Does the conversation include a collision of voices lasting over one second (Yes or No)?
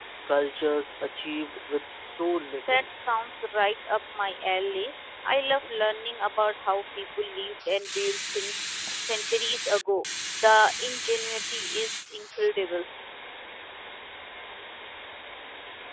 No